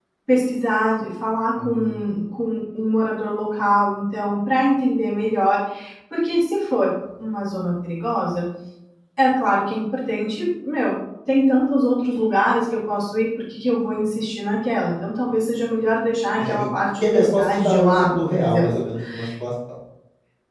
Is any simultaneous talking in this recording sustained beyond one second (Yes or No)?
Yes